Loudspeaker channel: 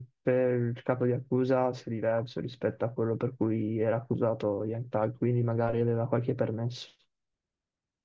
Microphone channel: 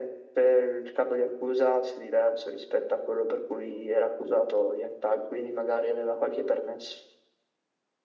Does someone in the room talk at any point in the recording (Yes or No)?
No